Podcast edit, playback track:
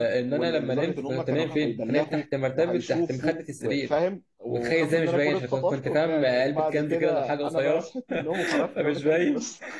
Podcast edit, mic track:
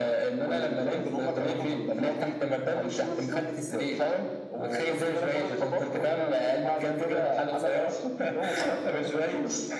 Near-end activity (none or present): none